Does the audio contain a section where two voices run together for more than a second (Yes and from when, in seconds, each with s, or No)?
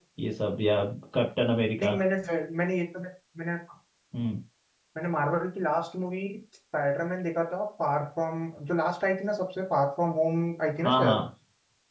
No